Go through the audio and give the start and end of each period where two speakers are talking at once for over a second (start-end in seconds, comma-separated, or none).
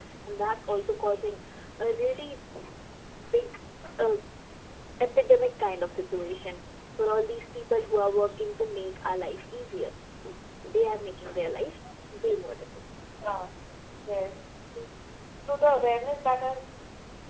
none